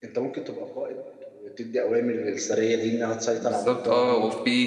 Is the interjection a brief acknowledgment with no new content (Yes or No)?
No